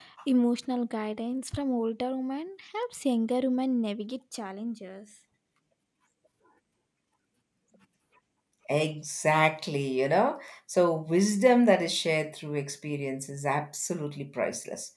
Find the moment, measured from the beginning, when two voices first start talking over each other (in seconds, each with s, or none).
none